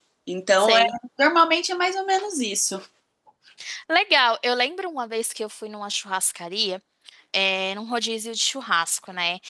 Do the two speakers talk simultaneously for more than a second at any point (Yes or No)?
No